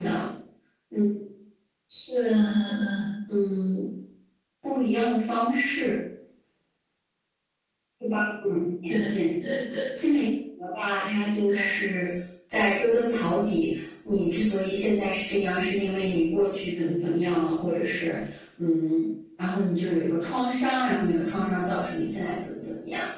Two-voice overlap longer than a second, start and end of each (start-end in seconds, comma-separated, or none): none